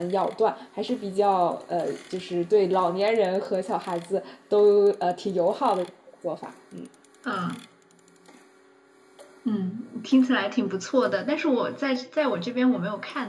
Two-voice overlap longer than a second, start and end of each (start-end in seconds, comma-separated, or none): none